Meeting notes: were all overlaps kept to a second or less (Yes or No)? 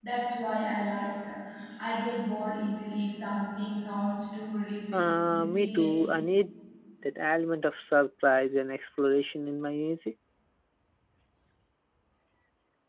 No